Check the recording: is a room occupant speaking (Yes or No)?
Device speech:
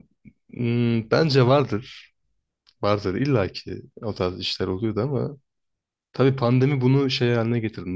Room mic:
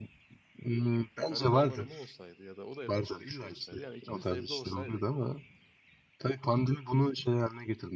Yes